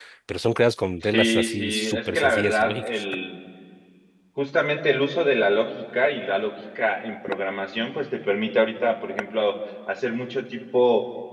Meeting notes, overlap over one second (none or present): present